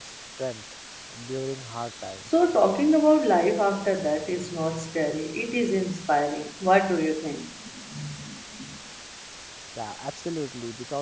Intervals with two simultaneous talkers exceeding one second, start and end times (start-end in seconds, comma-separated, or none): none